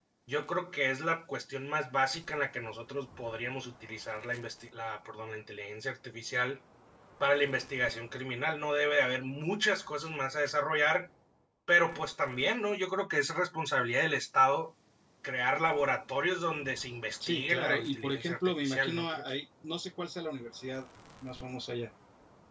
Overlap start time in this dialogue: 17.2 s

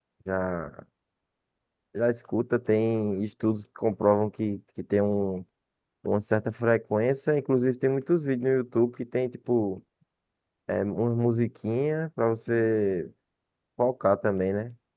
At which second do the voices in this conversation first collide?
none

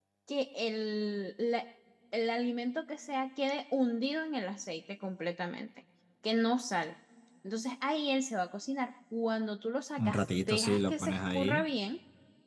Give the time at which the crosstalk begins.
10.0 s

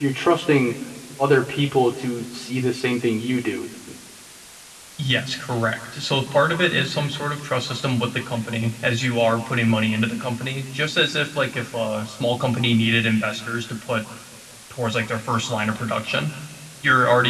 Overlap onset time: none

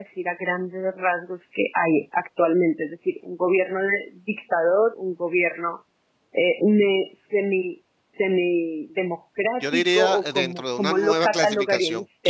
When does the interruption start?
9.6 s

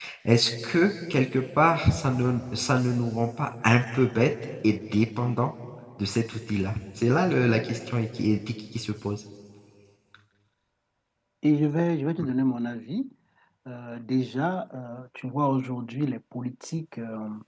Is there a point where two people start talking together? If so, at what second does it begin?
none

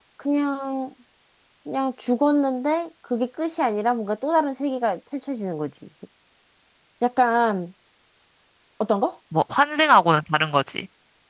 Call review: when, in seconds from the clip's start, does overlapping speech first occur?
none

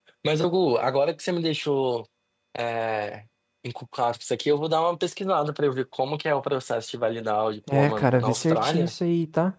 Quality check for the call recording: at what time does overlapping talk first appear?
7.7 s

